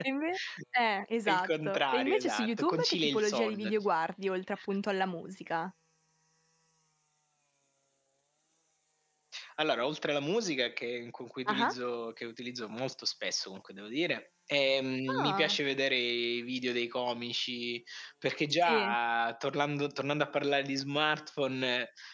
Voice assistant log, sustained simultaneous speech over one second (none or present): present